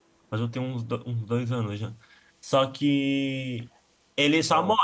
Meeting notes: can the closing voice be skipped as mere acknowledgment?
Yes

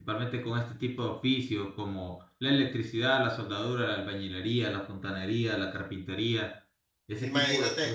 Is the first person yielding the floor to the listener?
Yes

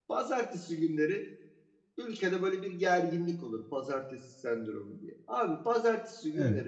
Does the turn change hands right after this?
No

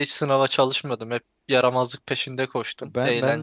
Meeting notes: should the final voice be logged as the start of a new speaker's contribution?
Yes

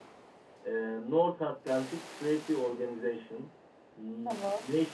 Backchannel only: Yes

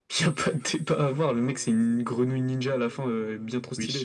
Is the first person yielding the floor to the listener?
Yes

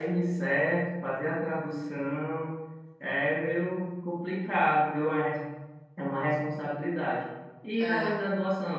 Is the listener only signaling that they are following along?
Yes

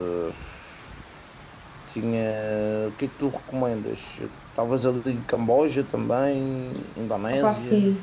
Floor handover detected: Yes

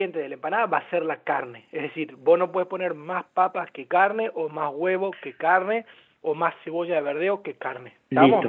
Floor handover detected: Yes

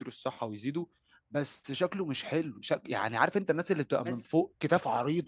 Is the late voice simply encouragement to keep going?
Yes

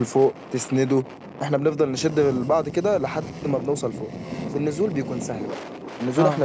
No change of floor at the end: Yes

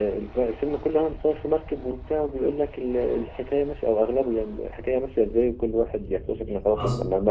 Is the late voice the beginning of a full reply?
No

